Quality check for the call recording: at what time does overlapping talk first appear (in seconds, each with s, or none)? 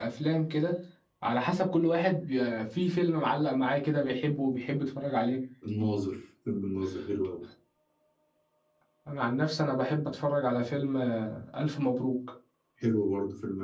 none